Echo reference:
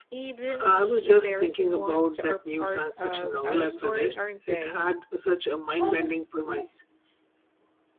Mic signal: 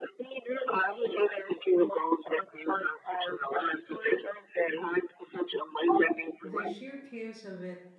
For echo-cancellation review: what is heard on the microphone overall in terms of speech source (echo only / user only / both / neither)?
both